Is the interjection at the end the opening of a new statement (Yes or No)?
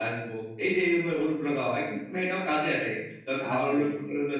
No